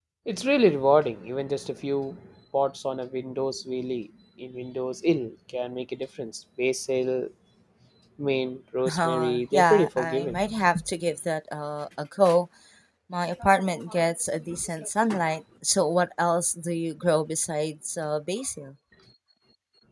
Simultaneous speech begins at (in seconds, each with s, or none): 8.9 s